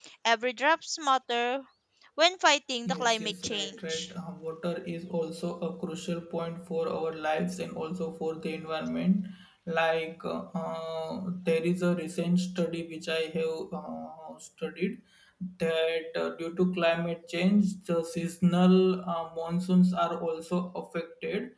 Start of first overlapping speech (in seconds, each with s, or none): 2.9 s